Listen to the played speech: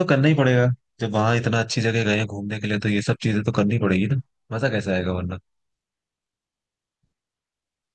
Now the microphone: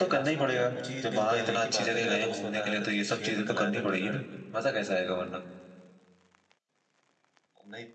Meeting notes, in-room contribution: present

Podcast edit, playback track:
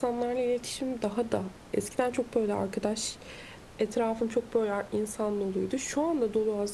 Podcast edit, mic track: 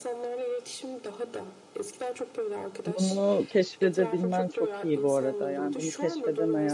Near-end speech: present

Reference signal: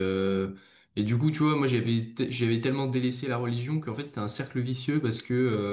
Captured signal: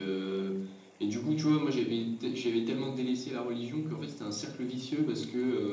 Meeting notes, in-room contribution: none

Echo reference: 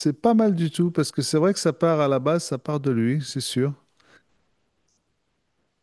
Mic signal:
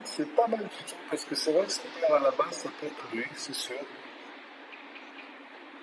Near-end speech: none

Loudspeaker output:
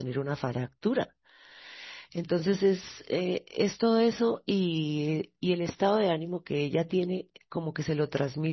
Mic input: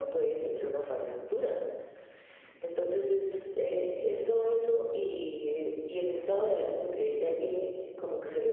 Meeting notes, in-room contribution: none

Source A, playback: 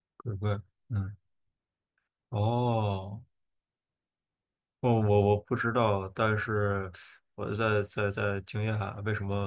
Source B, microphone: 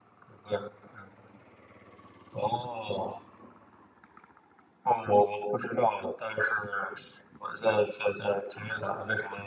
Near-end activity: none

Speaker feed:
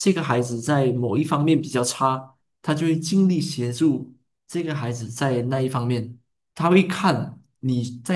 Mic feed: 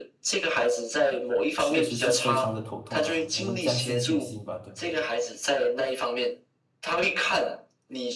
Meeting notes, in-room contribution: present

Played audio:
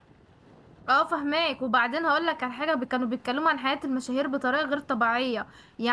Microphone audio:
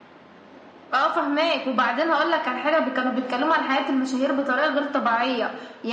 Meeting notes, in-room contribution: none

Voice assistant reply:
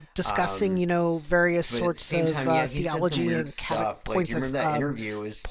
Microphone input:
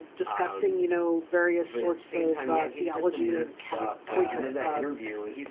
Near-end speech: present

